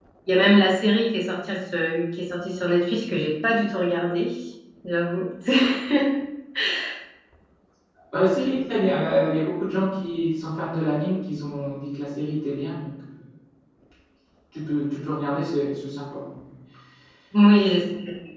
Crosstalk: none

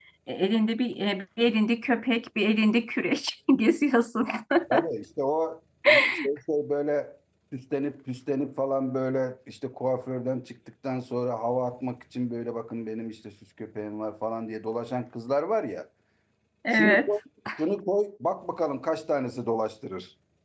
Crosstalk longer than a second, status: none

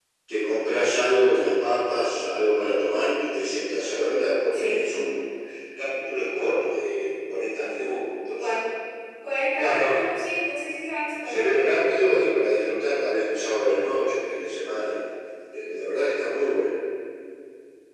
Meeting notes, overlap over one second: none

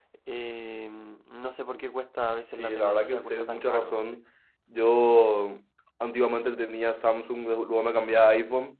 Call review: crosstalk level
present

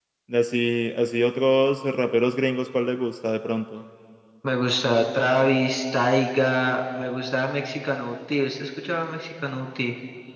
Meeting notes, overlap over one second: none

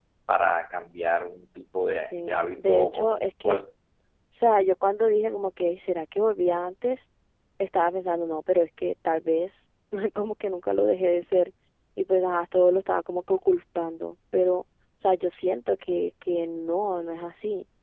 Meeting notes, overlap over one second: present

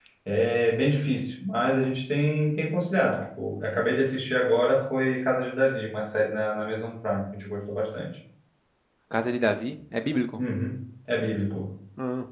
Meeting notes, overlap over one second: none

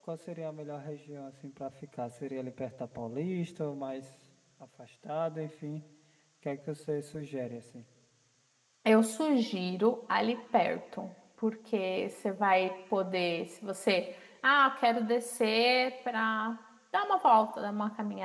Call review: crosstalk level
none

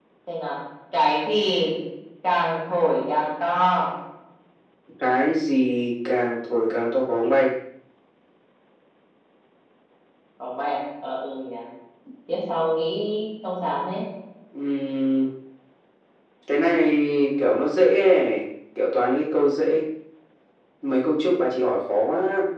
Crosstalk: none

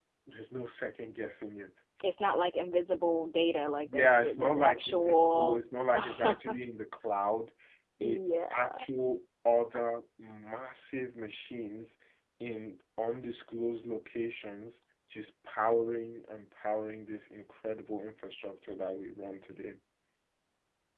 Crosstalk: present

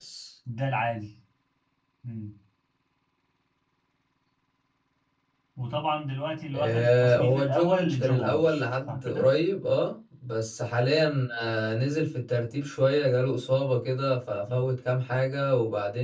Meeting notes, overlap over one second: present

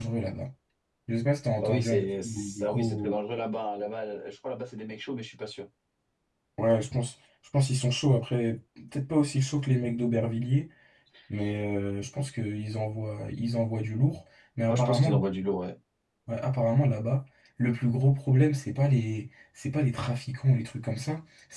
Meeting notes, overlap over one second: present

